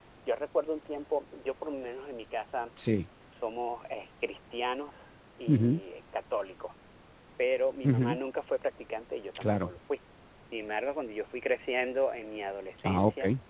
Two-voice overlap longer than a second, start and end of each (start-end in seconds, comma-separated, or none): none